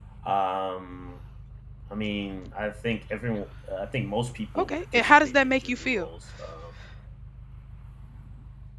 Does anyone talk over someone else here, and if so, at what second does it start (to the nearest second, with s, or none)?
5 s